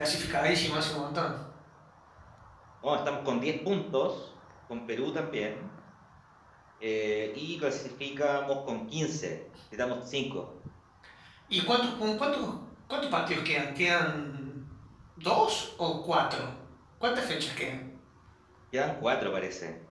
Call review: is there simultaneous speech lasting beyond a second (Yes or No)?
No